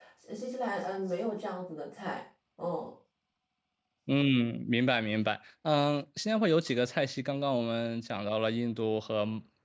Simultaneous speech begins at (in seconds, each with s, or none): none